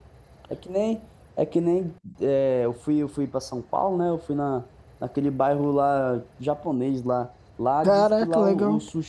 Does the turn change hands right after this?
No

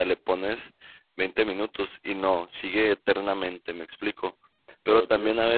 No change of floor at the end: Yes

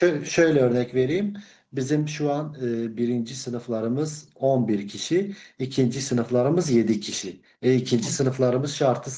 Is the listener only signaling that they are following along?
Yes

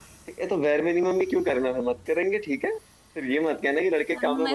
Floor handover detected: Yes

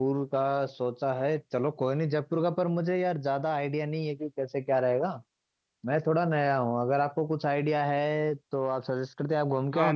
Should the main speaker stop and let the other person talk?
Yes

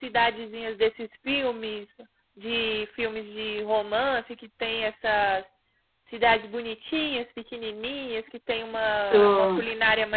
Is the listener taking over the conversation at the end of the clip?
No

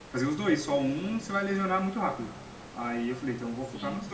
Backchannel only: Yes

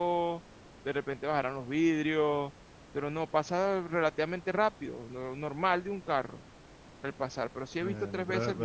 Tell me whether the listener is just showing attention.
No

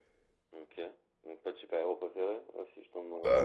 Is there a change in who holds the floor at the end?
Yes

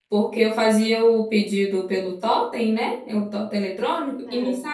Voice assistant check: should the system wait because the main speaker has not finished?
Yes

